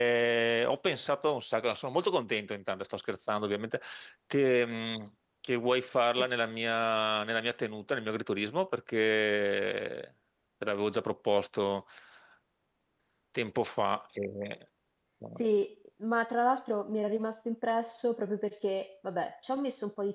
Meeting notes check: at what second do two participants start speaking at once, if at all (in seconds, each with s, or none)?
none